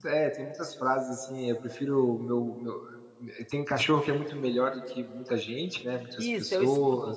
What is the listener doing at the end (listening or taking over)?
taking over